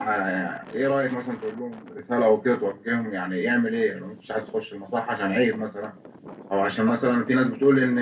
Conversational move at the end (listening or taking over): listening